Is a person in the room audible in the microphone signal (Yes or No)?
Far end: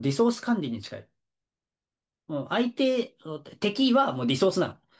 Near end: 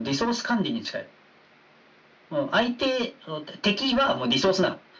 No